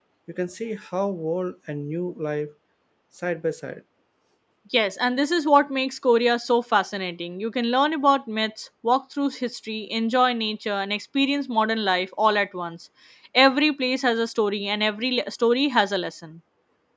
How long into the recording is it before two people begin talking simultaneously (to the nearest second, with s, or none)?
none